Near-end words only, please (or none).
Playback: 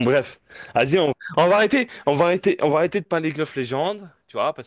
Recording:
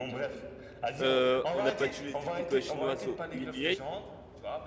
Euh, on a battu les équipes chinoises au EMEA.